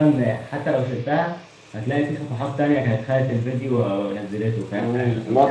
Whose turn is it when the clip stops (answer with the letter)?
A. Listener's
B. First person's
A